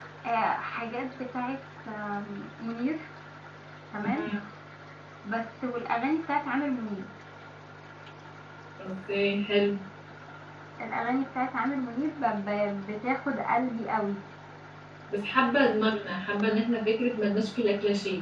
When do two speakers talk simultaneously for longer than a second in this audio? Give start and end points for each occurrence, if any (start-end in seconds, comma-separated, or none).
none